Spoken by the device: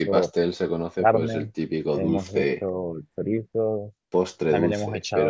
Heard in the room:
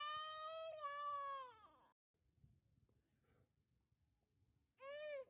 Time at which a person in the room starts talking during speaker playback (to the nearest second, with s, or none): none